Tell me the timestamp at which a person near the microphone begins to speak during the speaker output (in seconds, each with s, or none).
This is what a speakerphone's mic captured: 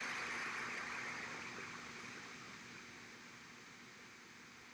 none